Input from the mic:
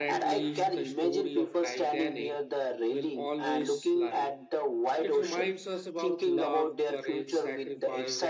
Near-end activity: present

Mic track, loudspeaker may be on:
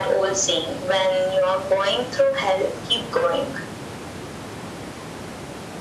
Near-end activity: none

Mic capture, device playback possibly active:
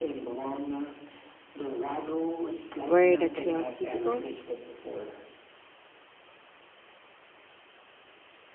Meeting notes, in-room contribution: present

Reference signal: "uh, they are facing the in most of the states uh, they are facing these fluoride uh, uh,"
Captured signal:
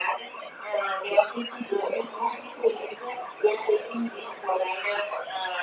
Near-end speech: none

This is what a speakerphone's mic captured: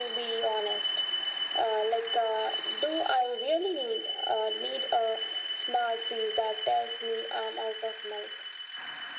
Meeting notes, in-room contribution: none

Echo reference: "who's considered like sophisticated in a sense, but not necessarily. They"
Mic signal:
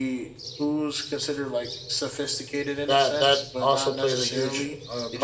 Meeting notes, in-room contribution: present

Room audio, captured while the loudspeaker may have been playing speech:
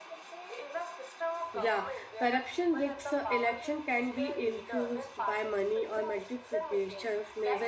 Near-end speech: present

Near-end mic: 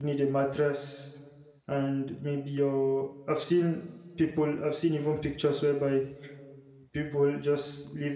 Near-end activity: present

